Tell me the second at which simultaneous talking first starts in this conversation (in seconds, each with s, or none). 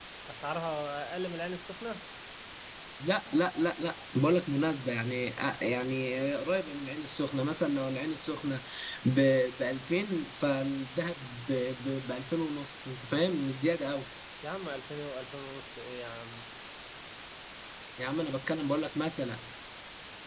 none